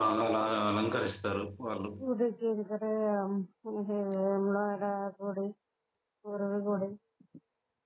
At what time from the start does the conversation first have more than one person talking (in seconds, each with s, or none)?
none